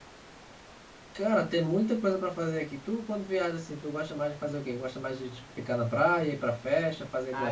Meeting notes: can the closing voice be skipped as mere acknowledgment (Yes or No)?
No